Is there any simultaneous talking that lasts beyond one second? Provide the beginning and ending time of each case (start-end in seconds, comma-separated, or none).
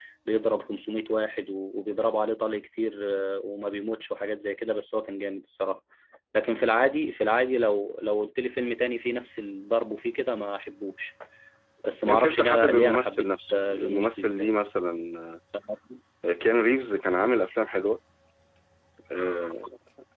12.1-14.5